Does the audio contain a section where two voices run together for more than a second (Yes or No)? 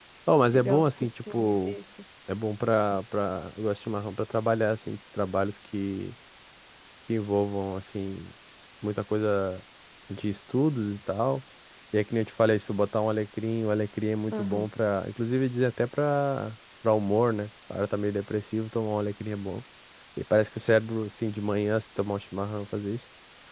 Yes